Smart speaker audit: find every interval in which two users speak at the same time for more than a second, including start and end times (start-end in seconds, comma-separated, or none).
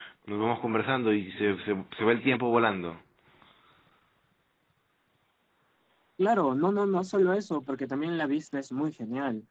none